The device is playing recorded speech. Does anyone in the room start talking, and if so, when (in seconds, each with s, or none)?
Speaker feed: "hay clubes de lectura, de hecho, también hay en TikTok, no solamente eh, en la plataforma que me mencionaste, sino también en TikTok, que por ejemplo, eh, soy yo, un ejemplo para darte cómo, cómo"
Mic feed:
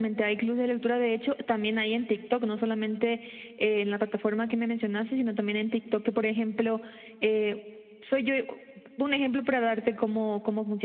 none